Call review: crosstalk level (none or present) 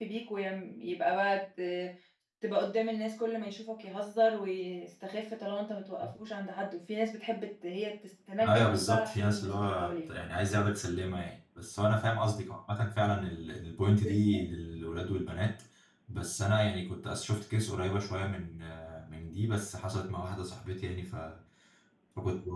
present